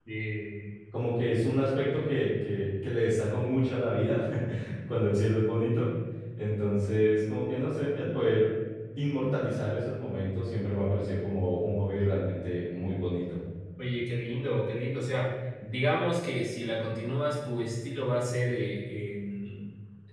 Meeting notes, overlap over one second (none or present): none